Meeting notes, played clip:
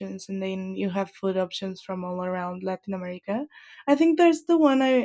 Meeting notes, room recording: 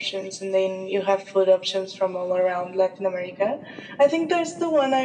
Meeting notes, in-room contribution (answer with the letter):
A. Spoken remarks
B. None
B